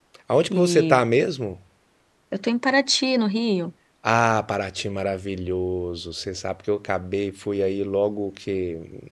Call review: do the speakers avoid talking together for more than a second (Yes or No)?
Yes